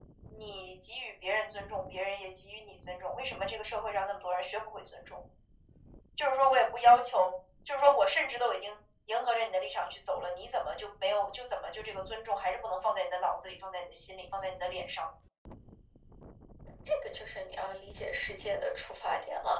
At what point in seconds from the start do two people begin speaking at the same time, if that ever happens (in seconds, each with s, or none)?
none